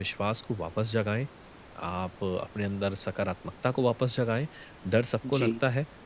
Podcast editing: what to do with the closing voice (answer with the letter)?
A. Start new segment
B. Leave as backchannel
B